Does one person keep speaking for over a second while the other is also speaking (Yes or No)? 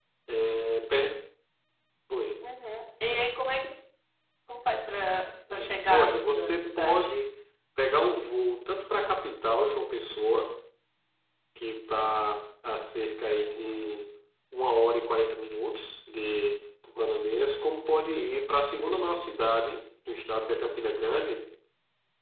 Yes